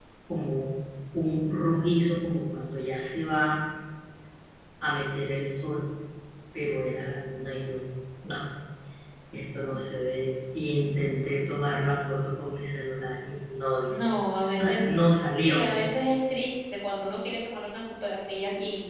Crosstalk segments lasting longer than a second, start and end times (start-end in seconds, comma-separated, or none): none